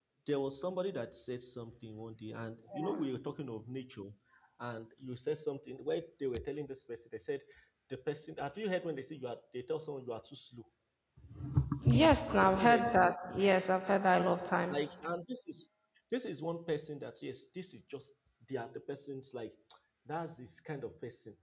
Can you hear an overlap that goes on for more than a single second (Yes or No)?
No